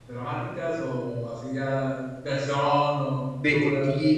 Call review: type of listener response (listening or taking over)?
taking over